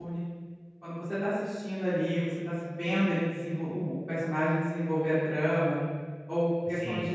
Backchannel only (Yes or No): Yes